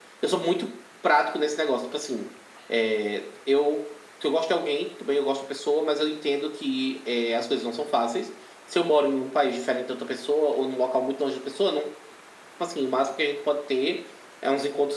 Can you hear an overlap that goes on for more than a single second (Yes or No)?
No